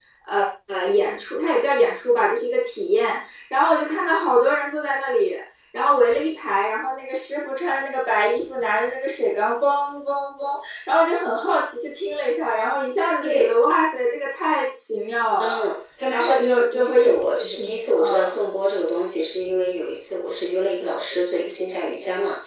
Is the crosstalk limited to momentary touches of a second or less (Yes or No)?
No